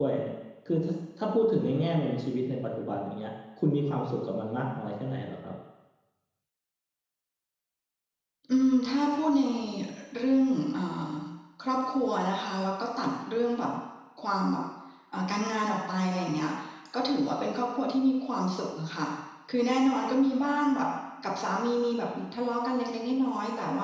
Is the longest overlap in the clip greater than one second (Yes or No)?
No